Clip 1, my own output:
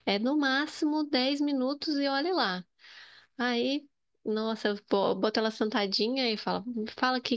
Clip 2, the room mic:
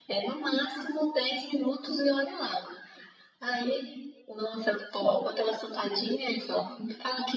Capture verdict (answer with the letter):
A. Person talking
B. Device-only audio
B